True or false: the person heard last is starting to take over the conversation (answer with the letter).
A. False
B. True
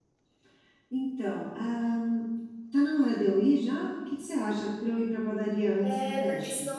B